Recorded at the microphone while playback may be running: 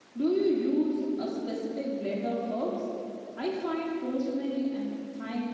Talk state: user only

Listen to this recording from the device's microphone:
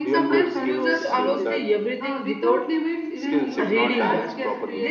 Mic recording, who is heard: both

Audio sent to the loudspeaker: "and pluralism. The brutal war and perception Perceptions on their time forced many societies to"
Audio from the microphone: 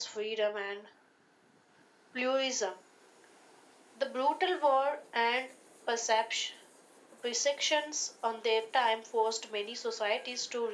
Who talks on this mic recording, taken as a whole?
echo only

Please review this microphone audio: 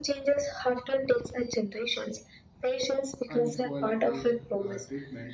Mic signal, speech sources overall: both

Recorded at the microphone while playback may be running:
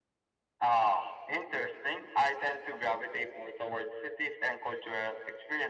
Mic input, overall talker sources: echo only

